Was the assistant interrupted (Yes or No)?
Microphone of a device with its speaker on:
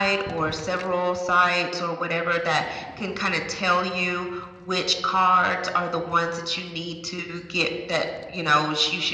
No